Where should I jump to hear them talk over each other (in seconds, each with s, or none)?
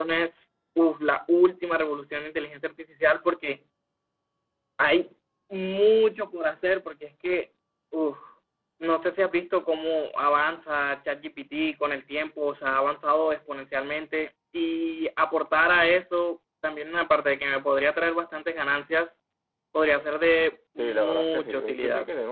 20.8 s